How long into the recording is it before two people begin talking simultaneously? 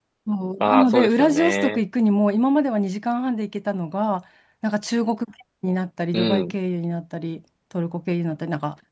0.6 s

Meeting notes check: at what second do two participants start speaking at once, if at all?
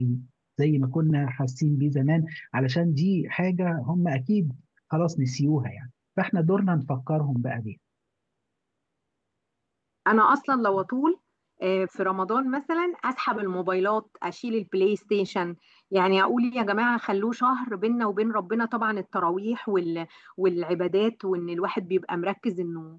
none

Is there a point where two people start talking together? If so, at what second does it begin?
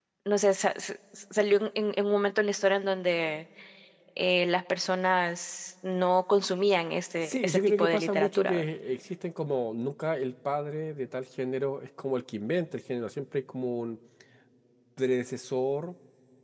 7.2 s

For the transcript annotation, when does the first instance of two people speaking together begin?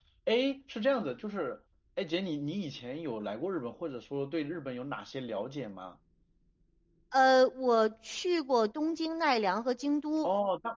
none

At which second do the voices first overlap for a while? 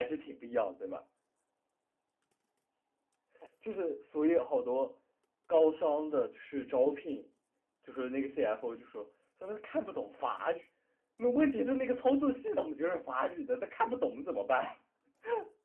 none

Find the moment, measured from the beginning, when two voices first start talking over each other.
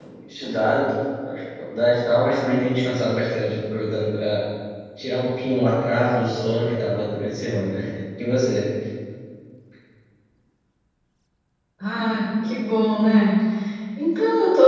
none

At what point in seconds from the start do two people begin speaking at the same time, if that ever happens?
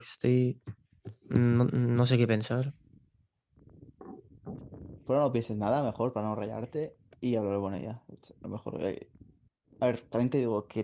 none

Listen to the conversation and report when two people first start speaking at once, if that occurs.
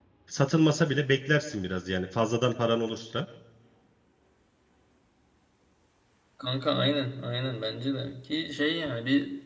none

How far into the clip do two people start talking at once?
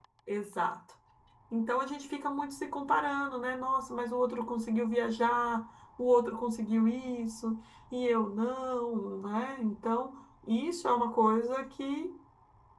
none

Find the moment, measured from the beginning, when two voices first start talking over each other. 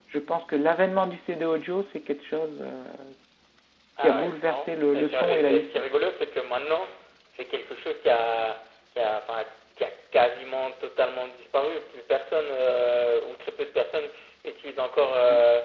4.0 s

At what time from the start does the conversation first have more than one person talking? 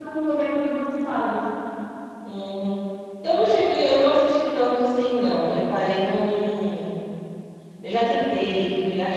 none

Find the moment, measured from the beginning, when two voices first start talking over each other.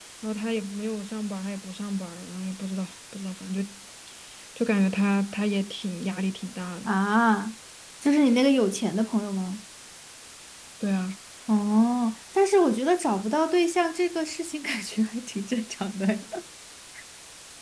none

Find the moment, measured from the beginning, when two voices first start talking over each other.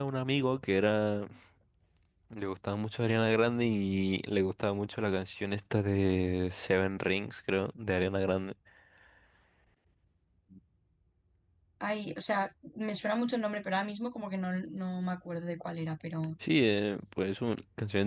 none

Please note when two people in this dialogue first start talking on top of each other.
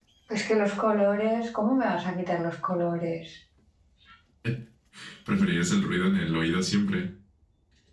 none

